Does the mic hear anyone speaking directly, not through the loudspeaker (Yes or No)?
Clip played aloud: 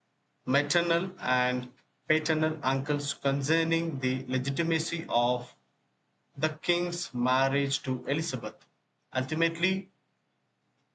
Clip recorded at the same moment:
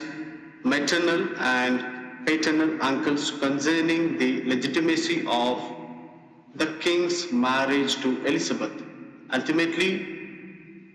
No